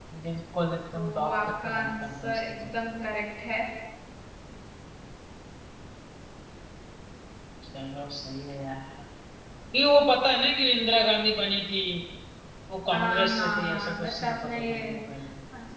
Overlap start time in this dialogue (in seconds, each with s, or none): 1.0 s